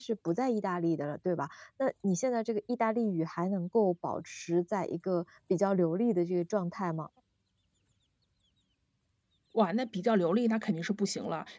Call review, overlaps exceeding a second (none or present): none